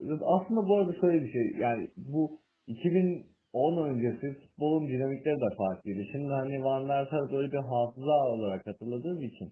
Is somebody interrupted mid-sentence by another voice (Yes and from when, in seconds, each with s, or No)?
No